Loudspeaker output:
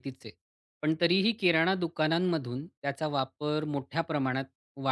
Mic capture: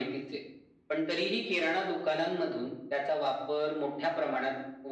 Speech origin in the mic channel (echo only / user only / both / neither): echo only